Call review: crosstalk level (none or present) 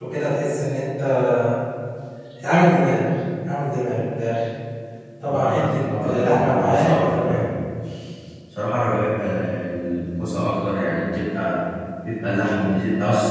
present